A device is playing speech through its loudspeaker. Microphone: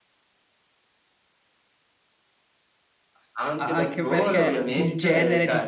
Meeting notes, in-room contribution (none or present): present